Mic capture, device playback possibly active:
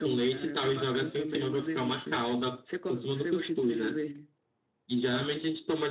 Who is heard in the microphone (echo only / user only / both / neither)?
echo only